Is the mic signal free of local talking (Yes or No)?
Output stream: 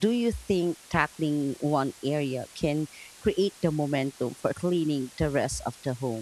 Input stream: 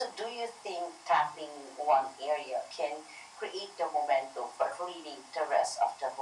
Yes